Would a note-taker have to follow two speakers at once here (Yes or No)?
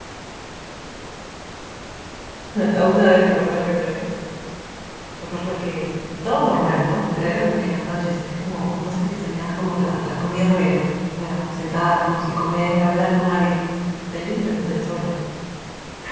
No